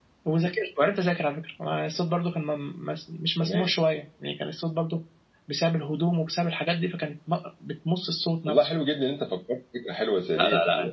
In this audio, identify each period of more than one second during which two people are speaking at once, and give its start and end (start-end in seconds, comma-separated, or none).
none